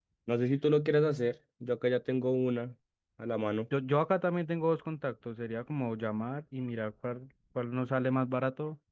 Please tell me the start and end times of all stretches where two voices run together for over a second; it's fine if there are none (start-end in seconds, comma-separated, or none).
none